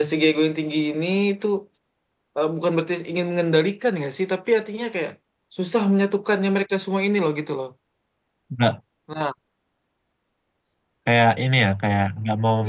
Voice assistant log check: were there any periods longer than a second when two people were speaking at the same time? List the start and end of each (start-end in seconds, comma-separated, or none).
none